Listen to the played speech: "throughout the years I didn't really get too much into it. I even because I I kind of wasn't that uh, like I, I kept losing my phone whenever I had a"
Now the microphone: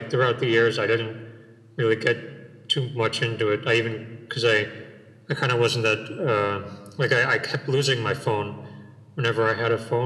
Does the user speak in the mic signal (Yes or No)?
No